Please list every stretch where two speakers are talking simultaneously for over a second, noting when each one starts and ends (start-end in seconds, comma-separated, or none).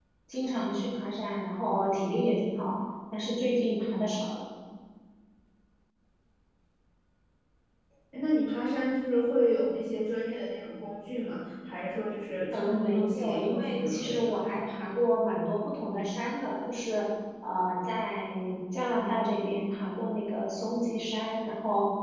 12.5-14.3